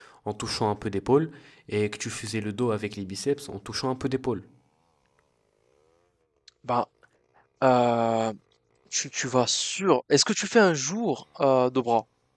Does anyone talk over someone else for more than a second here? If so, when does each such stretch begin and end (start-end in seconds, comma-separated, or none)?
none